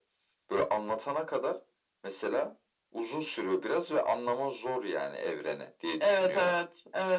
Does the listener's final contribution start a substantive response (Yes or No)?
Yes